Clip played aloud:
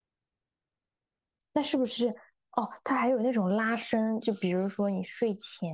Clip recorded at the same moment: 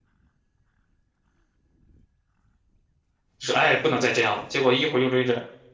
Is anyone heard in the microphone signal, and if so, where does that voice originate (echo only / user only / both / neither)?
user only